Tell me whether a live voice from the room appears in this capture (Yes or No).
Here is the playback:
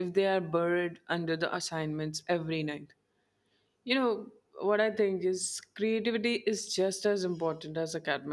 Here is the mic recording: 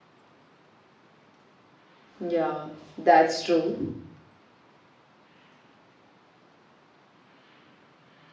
Yes